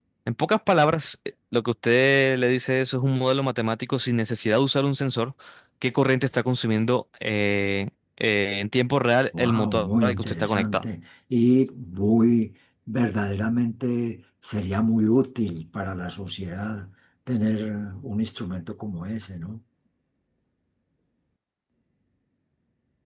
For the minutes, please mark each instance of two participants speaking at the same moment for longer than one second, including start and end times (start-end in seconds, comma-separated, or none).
9.4-10.8